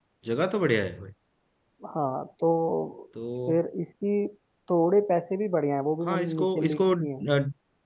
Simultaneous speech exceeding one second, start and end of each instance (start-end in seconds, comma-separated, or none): 6.0-7.2